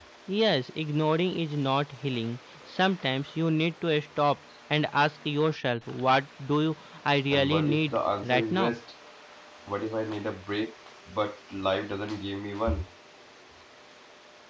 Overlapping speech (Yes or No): Yes